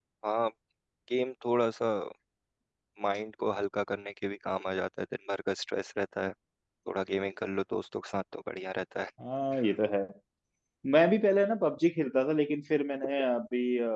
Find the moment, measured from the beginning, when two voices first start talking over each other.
none

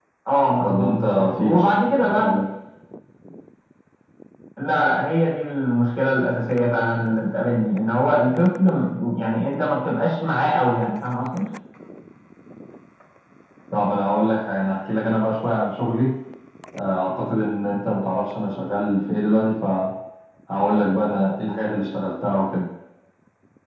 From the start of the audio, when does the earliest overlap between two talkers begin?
0.6 s

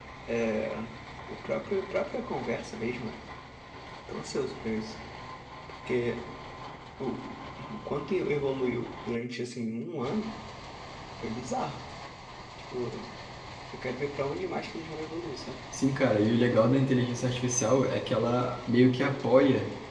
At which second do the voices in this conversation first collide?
none

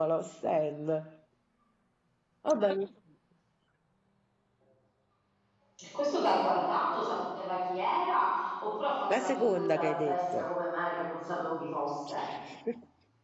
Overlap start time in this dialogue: 9.1 s

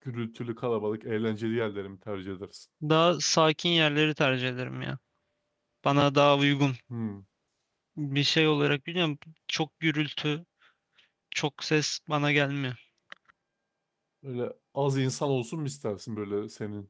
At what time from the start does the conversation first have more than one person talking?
none

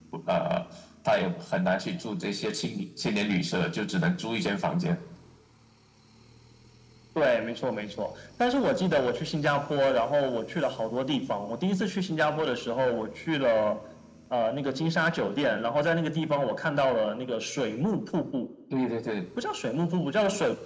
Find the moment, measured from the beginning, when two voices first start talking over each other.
none

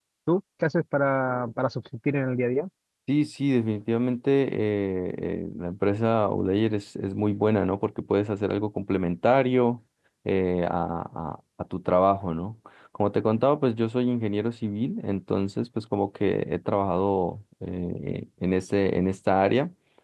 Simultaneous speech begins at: none

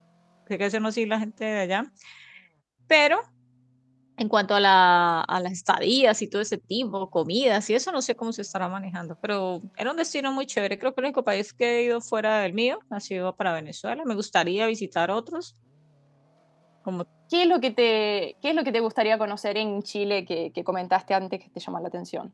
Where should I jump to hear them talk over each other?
none

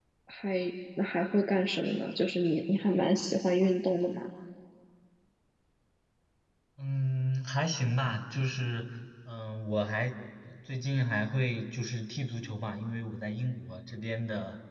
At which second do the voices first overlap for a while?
none

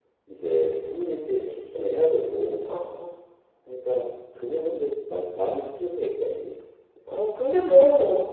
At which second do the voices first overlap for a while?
none

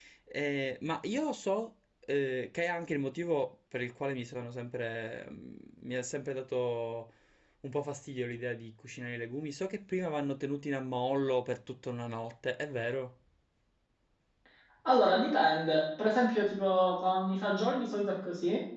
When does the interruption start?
none

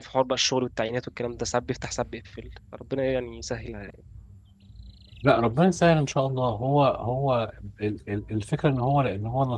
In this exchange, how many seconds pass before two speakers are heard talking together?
none

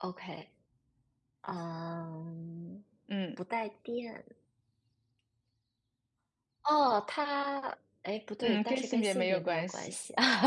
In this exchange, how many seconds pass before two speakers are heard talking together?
8.4 s

